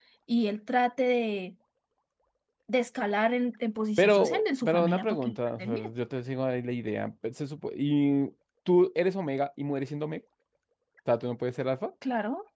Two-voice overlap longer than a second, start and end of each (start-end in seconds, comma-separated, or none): 4.0-5.9